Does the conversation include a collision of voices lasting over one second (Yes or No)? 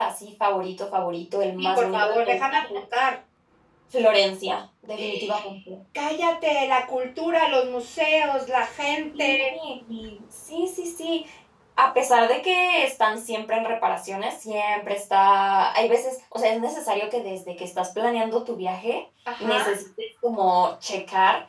Yes